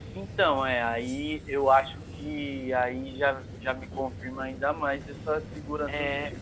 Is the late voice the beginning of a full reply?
No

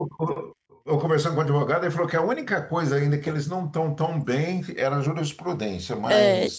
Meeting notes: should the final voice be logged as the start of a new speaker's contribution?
Yes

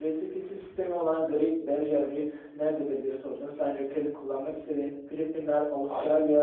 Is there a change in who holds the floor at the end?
No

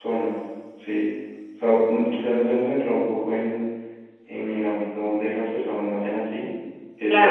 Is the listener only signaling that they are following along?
No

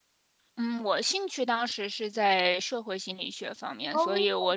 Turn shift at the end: No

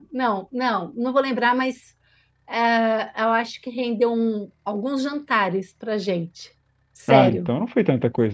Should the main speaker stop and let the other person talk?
Yes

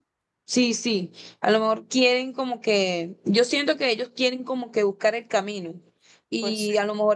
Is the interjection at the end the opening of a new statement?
No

